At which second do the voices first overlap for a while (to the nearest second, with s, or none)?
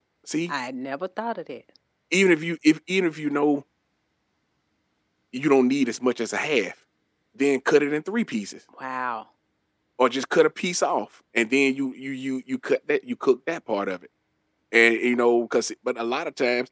none